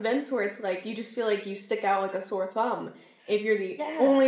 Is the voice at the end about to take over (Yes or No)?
No